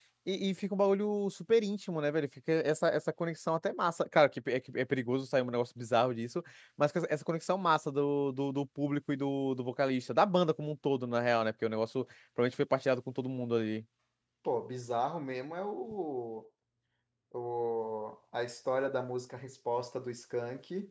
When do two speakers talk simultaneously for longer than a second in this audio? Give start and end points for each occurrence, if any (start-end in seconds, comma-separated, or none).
none